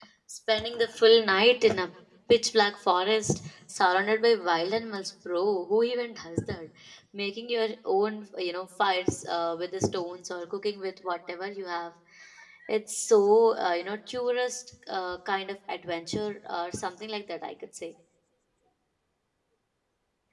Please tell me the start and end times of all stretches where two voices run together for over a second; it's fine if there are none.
none

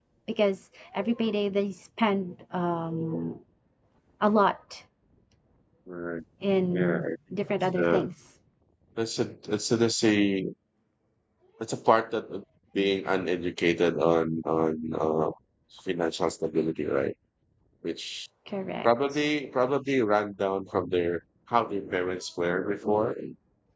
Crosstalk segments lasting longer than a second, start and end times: none

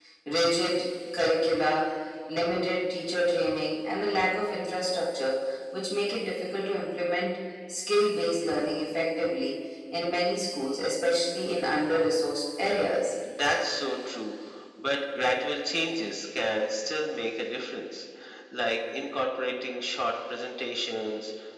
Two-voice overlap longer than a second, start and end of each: none

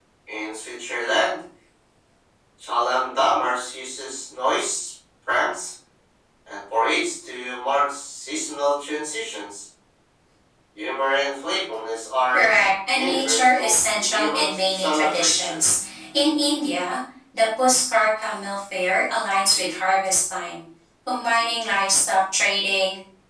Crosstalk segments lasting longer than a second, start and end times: 12.9-15.7

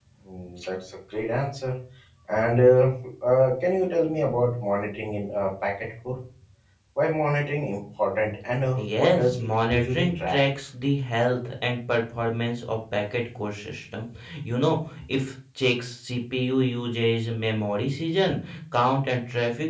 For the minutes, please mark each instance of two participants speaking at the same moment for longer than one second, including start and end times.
8.8-10.4

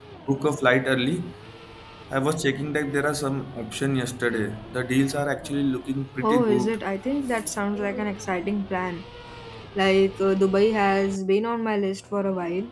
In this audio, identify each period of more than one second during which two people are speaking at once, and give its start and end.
none

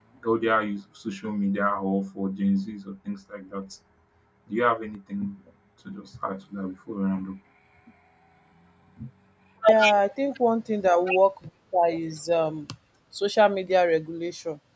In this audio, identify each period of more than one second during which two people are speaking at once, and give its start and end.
none

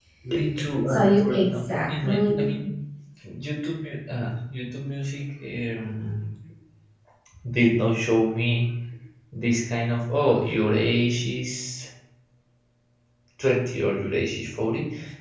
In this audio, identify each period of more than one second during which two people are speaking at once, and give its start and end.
0.9-2.5

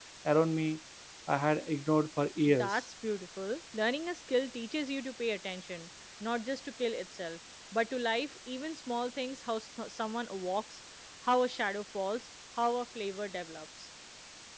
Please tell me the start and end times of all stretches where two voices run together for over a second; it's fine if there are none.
none

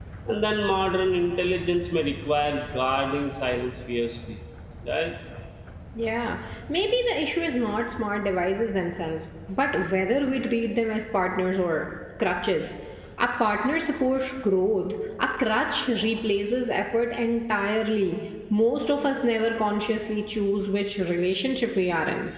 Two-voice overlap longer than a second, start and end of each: none

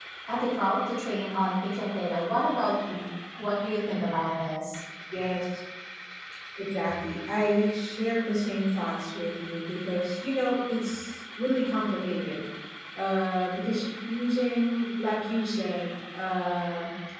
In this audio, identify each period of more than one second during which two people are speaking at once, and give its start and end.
none

